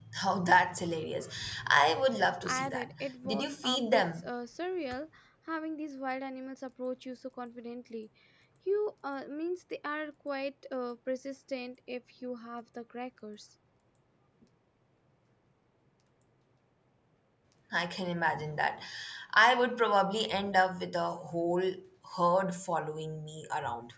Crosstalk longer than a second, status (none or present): present